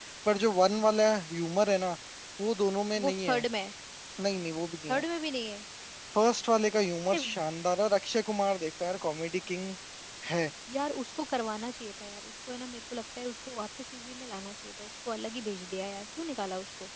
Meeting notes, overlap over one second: none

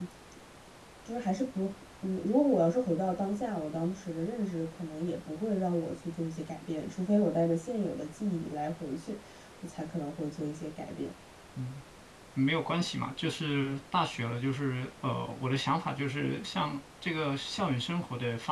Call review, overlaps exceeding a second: none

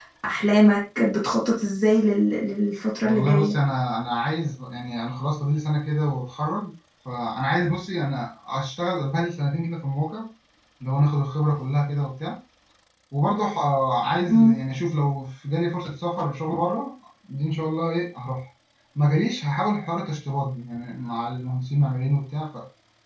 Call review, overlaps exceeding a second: none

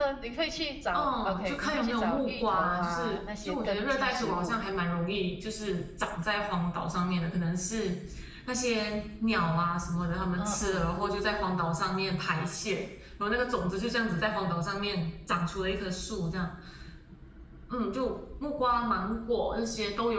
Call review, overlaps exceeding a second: present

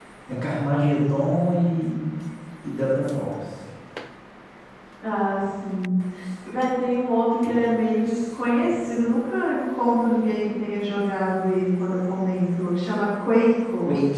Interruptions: none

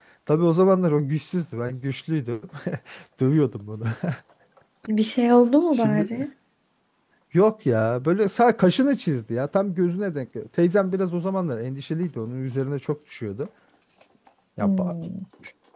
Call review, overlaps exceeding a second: none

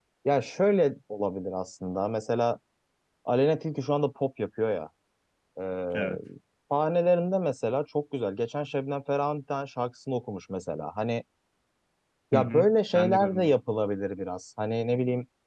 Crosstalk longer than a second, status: present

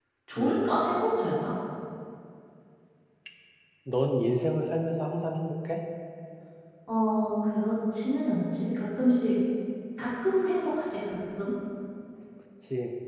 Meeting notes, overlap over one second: none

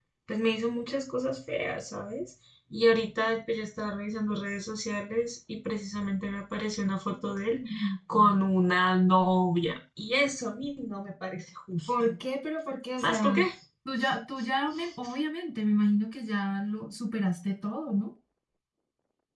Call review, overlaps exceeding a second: none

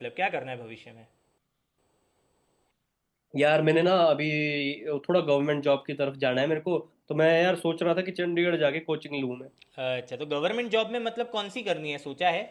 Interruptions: none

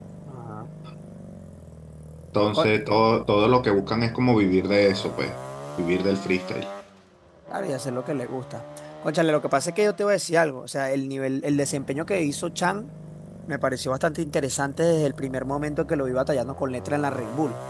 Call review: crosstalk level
none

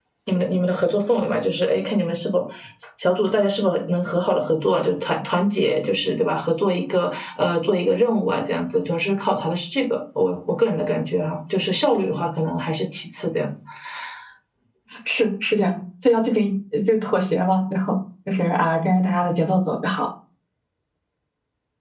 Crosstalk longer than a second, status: none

